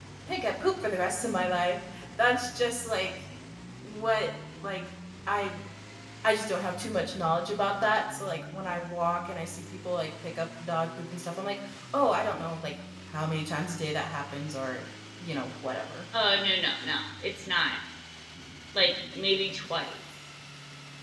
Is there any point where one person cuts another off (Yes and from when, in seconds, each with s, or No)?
No